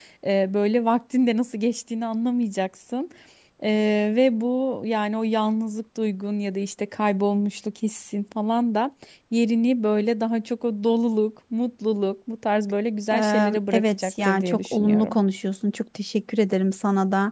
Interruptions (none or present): present